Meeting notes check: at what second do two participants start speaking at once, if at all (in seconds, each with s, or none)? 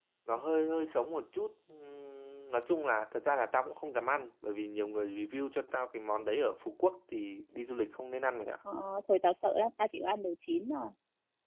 none